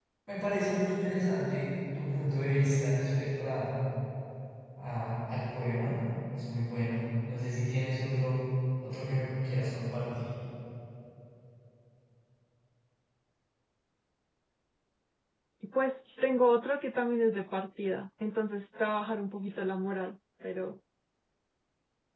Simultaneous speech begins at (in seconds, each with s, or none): none